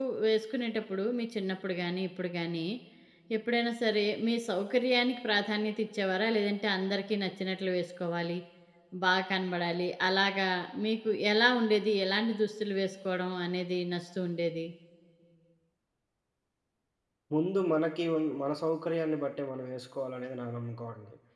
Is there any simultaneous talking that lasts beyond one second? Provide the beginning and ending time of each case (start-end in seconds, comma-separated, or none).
none